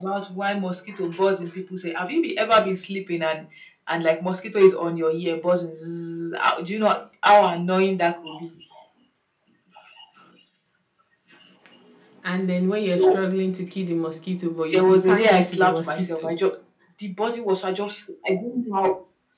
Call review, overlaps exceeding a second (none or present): present